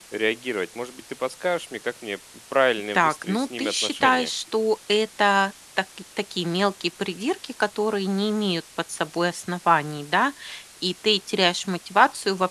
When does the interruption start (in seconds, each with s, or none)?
2.9 s